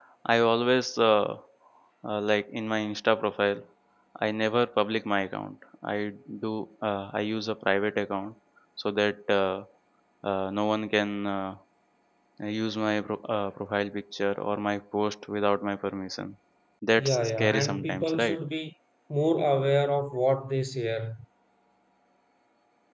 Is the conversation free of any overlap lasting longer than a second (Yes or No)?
No